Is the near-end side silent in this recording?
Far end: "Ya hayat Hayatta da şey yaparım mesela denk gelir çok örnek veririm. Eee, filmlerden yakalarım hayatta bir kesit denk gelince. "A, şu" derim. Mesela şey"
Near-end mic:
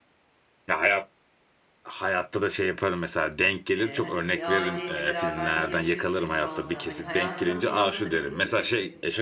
No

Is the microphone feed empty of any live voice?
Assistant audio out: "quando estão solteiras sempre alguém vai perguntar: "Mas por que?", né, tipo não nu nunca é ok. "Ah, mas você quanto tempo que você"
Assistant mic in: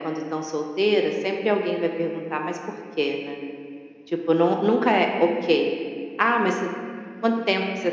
Yes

